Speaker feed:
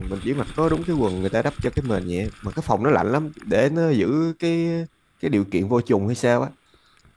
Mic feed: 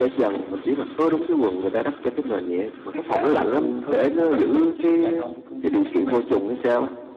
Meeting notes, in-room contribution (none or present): present